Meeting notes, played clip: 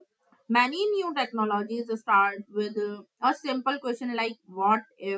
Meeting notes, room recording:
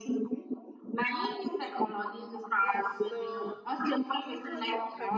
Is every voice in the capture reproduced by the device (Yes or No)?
No